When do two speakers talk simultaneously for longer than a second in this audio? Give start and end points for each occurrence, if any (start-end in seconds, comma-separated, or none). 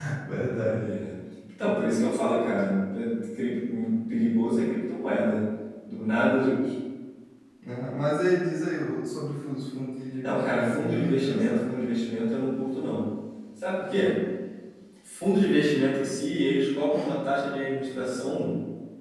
10.2-11.9